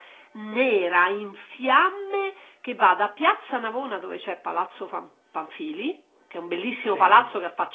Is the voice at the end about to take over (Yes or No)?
No